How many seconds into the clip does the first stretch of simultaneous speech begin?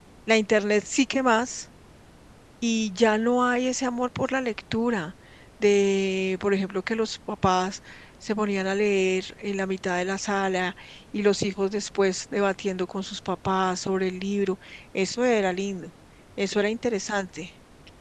none

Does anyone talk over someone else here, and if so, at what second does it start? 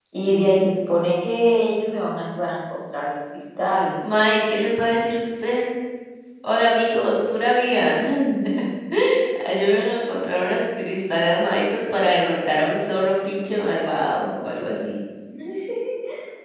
none

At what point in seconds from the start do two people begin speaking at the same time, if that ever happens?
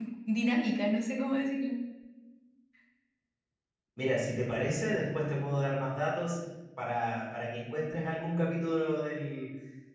none

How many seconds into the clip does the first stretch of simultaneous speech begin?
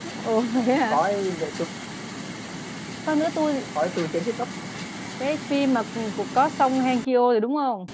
none

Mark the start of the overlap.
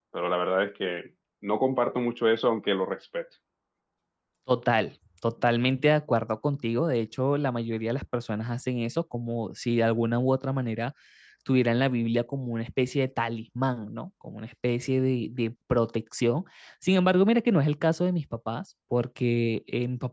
none

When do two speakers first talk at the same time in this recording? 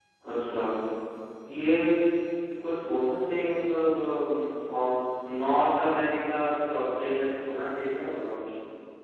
none

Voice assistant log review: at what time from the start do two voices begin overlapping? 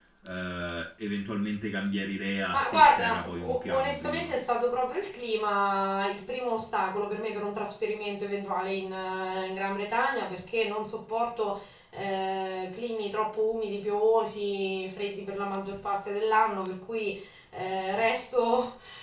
2.5 s

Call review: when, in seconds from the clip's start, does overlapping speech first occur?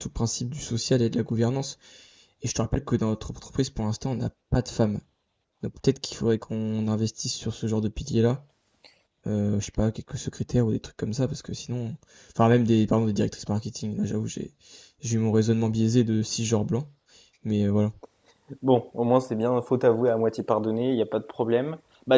none

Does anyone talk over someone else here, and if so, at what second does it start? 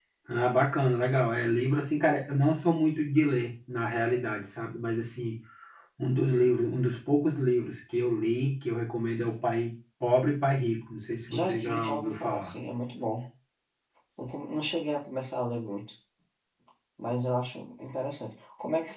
11.3 s

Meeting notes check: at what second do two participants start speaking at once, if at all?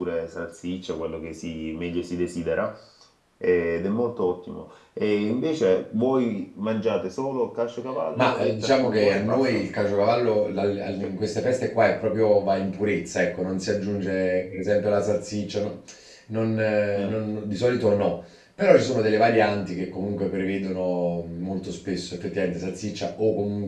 8.2 s

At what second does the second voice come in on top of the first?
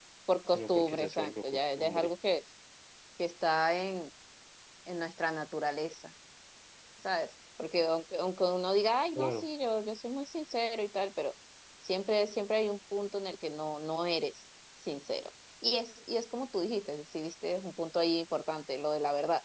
0.5 s

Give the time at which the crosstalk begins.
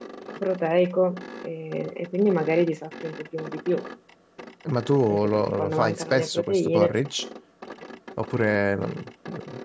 5.1 s

